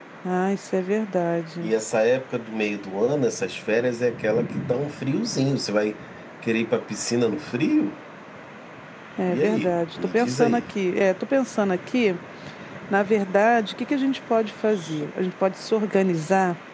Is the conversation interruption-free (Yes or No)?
No